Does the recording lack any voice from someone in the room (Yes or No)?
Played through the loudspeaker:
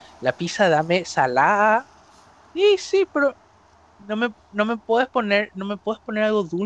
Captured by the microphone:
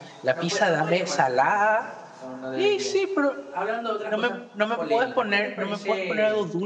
No